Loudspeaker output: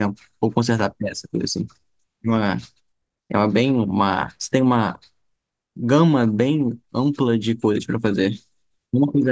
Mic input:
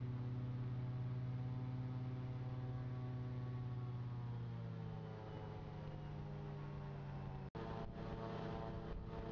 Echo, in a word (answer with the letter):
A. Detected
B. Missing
B